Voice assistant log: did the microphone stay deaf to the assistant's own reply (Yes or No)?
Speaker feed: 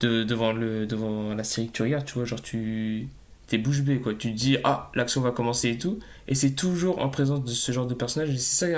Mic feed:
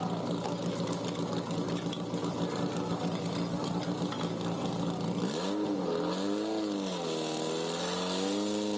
Yes